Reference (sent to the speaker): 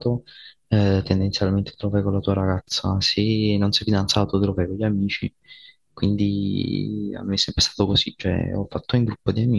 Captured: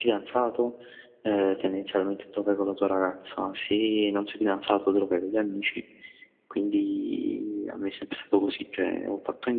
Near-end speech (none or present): none